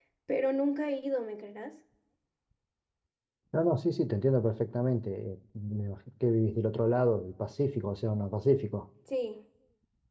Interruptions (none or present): none